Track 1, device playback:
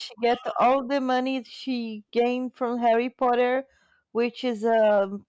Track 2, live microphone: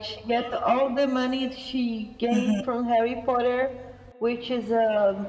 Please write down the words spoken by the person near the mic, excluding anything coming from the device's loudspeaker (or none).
hmm